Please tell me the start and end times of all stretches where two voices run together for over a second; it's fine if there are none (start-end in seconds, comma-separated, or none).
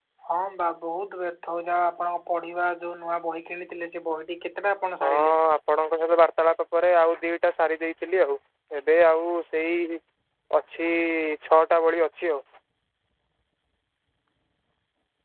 none